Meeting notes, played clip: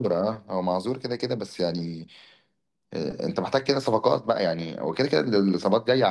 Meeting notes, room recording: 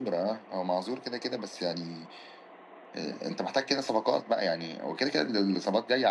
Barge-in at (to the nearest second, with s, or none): none